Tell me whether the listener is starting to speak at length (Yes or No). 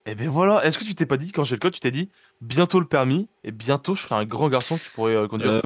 Yes